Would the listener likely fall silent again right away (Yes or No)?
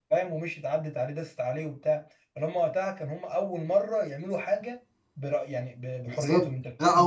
No